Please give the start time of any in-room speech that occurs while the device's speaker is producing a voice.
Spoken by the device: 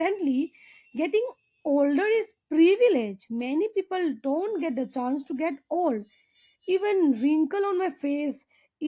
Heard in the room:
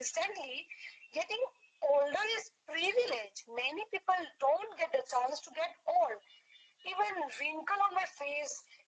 none

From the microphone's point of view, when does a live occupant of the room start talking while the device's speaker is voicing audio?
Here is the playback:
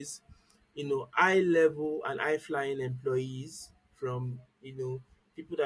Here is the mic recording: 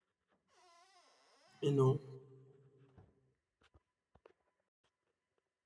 2 s

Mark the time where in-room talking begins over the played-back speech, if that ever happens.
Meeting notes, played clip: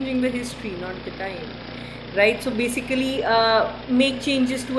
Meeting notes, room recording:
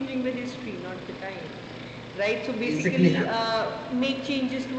3 s

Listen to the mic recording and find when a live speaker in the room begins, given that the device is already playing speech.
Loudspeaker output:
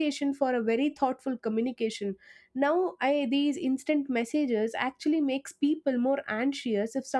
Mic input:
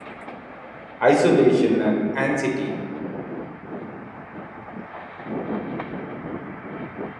1 s

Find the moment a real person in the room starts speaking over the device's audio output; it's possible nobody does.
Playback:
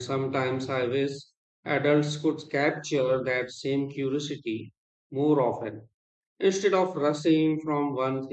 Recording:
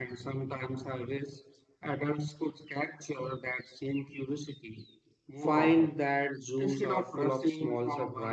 5 s

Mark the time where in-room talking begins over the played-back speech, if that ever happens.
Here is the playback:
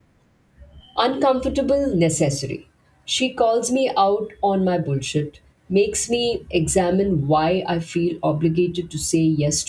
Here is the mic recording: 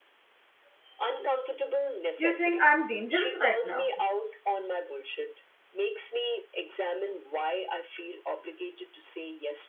2 s

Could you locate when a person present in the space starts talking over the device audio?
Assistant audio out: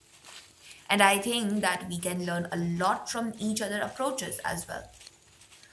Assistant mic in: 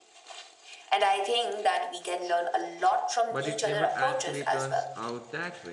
3 s

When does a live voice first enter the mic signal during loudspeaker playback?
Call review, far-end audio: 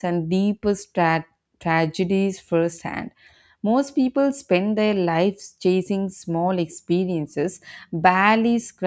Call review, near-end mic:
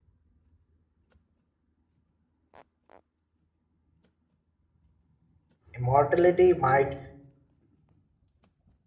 6 s

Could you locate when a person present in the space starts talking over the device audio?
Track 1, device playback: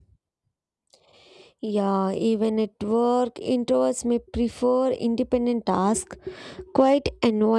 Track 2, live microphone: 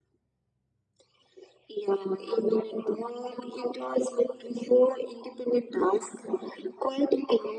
none

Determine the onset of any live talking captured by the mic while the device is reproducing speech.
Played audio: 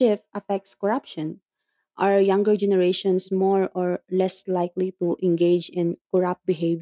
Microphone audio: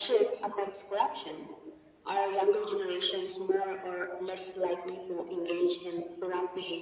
none

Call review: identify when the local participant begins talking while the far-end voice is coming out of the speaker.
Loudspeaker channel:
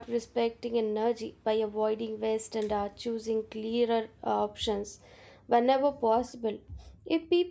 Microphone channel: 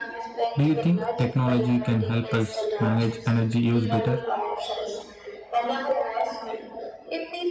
1 s

